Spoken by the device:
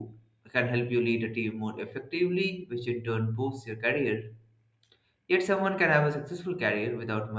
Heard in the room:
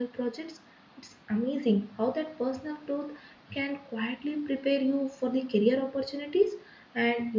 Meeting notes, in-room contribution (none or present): present